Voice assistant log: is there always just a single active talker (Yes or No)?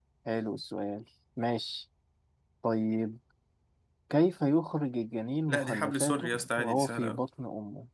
No